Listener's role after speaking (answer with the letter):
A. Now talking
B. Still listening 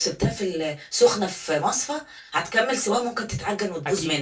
A